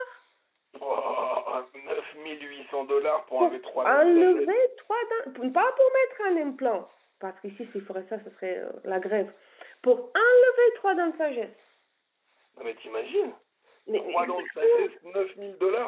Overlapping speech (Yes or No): Yes